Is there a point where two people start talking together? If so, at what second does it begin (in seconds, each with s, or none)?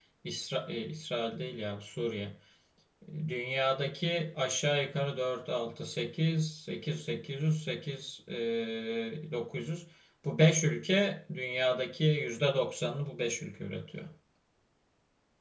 none